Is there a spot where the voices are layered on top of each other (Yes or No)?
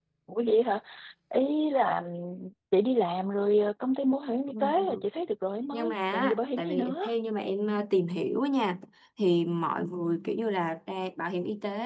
Yes